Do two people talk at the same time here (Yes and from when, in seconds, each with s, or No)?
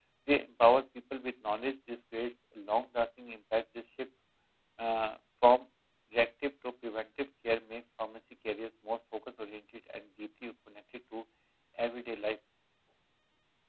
No